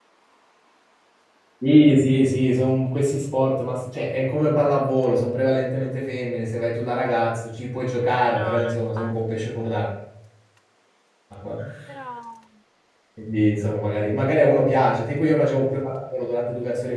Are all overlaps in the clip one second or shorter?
No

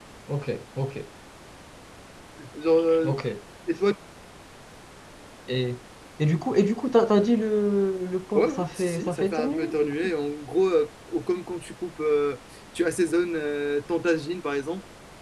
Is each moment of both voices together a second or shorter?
No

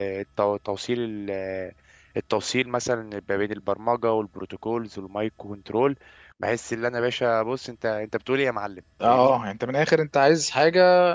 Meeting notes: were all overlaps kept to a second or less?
Yes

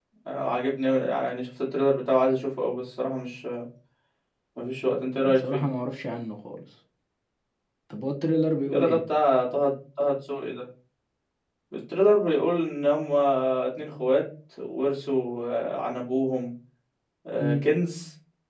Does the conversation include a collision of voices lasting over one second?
No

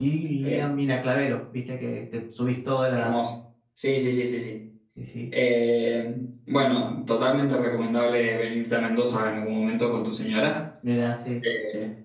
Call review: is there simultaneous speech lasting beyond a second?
No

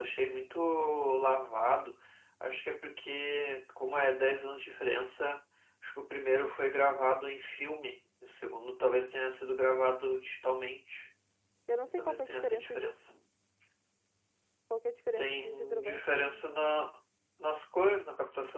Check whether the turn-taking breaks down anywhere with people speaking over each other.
Yes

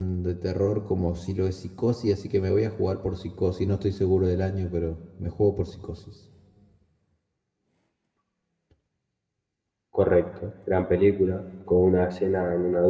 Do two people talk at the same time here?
No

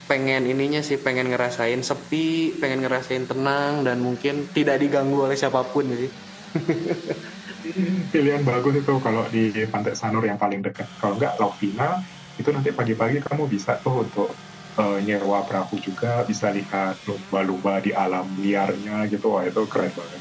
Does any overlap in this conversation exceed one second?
No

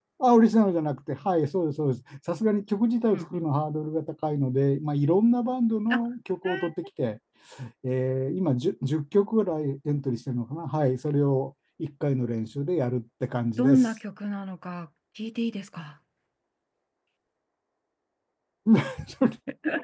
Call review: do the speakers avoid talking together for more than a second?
Yes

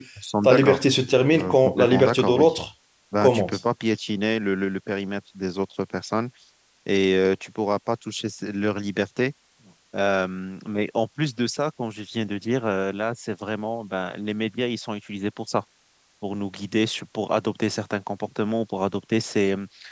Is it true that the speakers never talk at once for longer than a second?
No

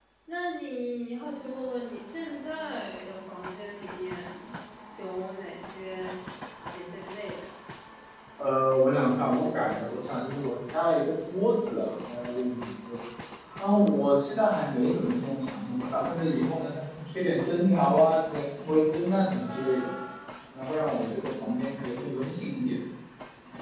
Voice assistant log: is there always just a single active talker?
Yes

